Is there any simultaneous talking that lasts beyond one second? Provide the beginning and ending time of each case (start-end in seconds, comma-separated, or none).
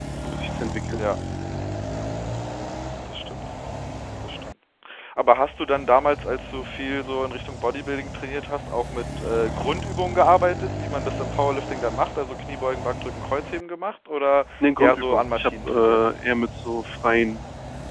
14.8-16.1